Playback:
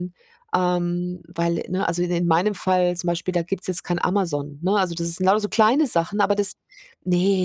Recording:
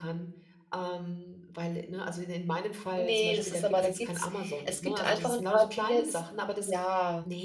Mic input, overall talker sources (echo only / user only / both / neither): both